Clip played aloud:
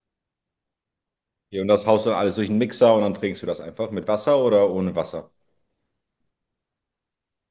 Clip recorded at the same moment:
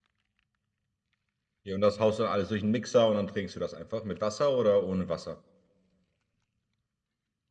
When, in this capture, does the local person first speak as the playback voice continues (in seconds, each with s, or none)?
none